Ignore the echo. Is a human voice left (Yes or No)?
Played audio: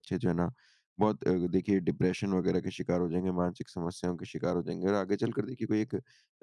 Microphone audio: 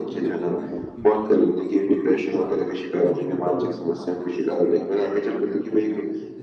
Yes